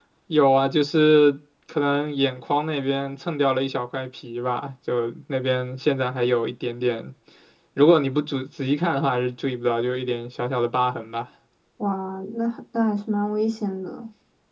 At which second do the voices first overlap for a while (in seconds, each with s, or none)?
none